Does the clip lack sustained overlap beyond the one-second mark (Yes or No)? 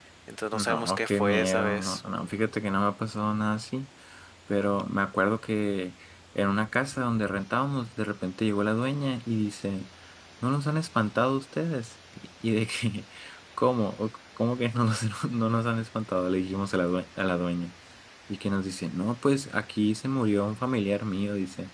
No